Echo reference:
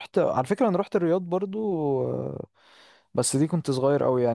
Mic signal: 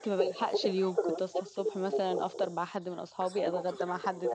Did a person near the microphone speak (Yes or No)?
Yes